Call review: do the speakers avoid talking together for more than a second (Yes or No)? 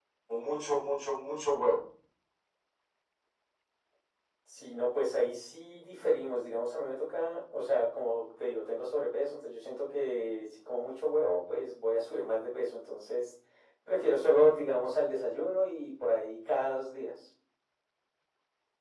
Yes